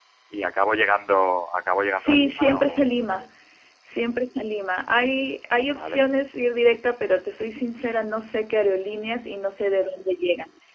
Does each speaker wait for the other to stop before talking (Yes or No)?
No